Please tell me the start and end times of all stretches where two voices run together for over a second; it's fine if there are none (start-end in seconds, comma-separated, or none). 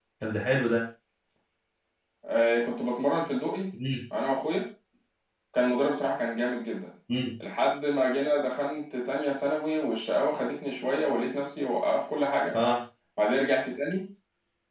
none